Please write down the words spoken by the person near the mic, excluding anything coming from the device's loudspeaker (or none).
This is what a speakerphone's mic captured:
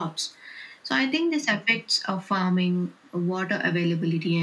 none